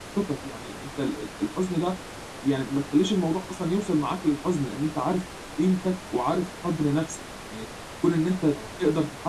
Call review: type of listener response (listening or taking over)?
listening